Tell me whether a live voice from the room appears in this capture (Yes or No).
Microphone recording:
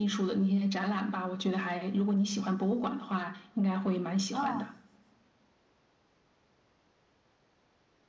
Yes